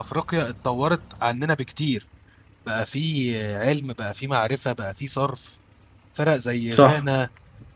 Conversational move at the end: listening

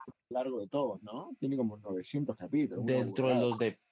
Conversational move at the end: taking over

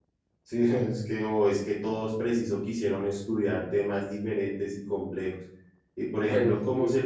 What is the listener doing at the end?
listening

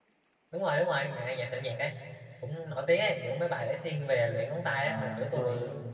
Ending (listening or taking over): taking over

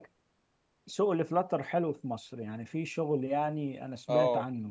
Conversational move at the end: taking over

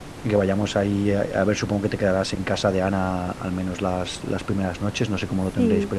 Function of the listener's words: taking over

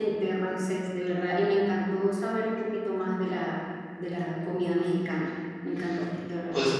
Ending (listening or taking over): taking over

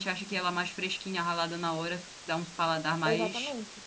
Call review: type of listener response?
taking over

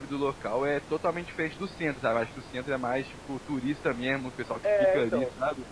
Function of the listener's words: taking over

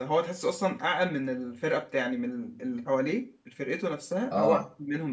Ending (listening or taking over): listening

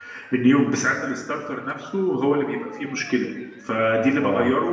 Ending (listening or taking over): listening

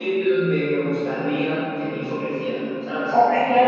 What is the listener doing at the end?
taking over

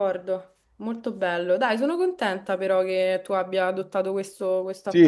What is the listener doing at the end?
taking over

